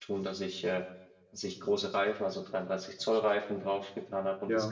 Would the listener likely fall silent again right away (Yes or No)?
Yes